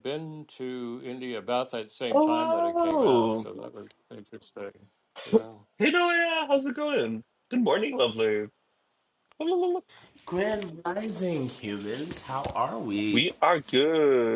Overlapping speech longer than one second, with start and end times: 2.1-3.5

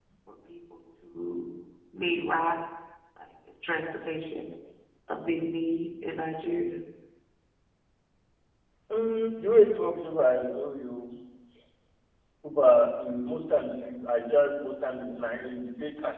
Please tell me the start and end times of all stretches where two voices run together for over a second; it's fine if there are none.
none

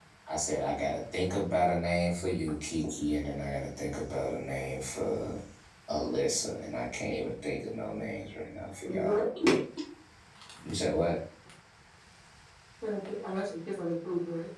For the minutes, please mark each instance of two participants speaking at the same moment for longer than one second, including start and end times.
none

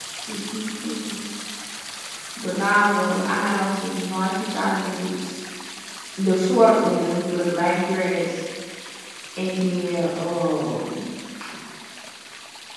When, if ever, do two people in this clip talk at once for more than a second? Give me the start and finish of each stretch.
none

